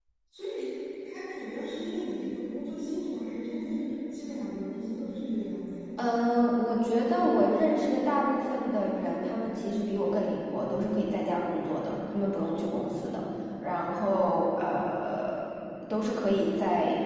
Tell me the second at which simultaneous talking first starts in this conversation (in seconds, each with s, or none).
none